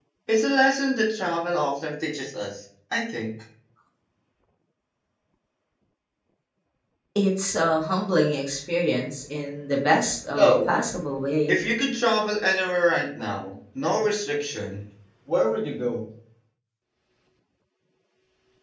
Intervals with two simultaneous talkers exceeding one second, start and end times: none

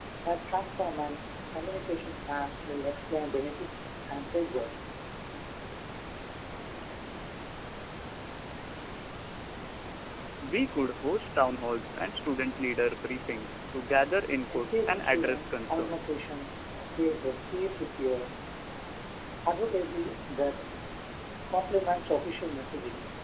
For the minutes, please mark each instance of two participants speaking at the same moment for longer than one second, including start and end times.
14.5-16.0

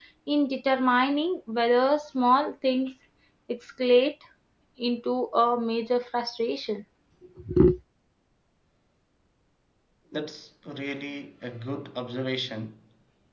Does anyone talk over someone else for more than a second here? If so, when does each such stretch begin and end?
none

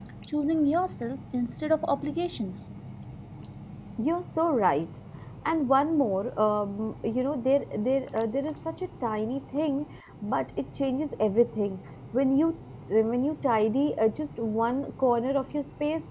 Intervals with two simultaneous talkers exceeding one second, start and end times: none

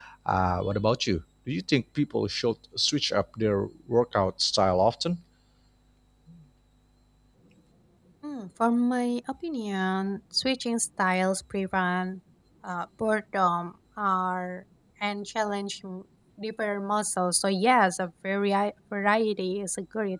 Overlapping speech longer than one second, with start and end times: none

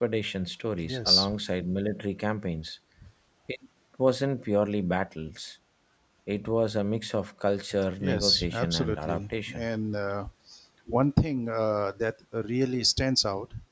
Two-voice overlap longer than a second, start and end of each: 8.0-9.7

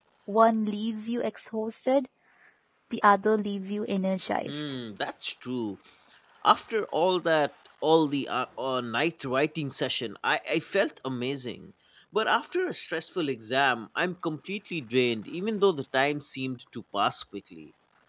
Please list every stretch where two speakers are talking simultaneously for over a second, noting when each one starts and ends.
none

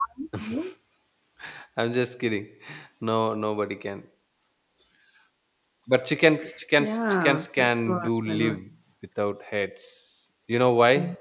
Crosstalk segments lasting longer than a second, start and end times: 6.8-8.6

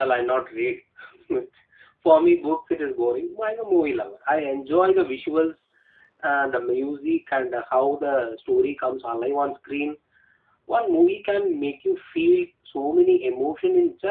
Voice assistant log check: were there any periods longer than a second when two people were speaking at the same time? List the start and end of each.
none

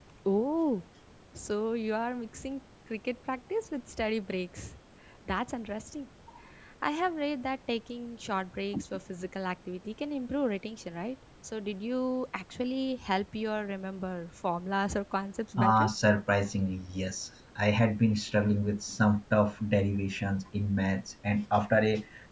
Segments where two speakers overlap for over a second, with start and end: none

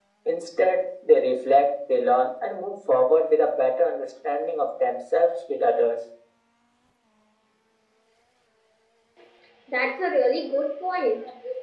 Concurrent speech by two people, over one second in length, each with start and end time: none

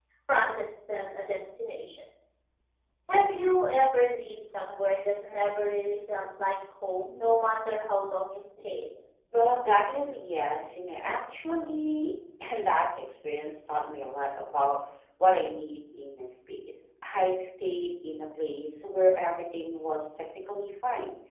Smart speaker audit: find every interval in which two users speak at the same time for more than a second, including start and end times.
none

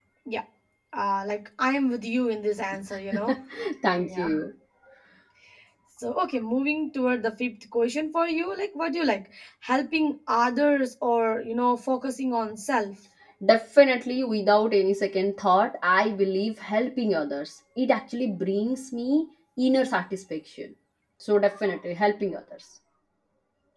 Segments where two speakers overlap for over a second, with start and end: none

